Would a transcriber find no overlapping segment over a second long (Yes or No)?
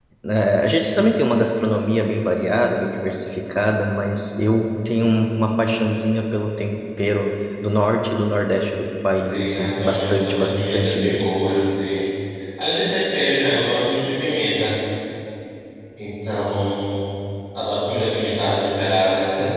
No